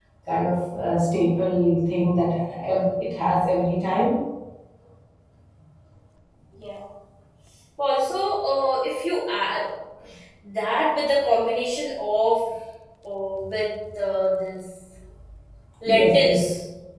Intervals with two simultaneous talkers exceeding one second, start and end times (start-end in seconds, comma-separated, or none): none